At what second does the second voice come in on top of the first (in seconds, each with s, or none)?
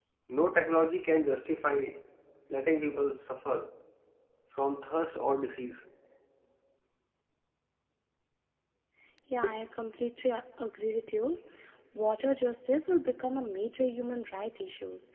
none